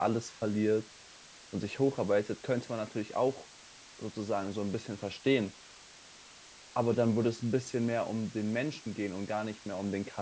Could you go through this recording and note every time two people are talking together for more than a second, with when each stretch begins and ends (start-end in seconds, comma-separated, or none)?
none